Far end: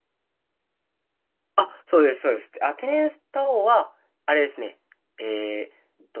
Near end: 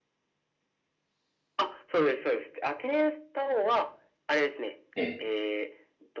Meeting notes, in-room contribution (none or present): present